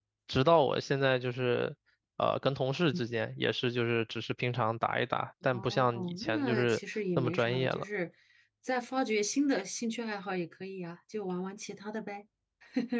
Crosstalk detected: Yes, from 5.5 s

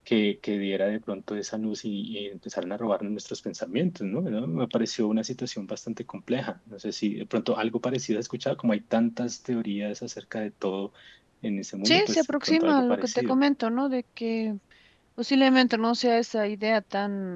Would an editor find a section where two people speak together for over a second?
Yes, from 11.8 s

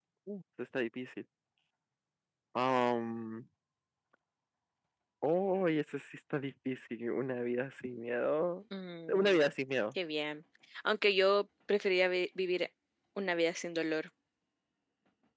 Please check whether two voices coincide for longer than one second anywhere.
No

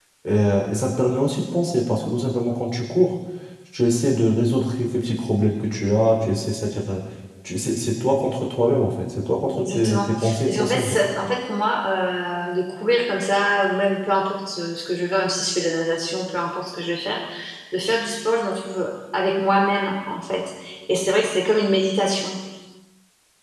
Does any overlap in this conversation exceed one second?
Yes, from 9.5 s

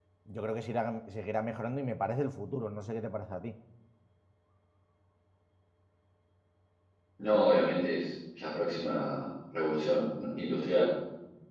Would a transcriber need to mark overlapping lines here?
No

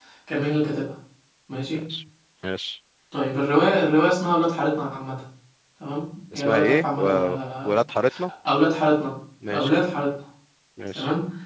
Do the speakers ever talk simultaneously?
Yes, from 6.3 s

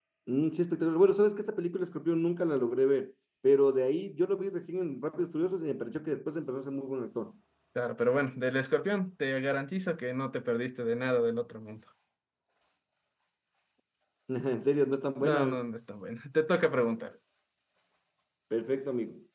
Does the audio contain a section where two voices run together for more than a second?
No

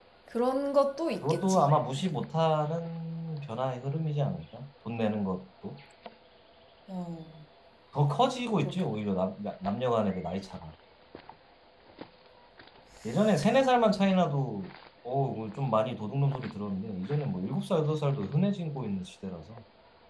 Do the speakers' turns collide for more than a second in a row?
No

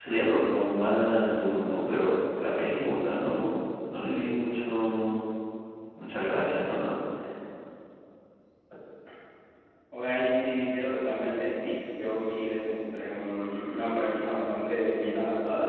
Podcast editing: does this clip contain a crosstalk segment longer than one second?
No

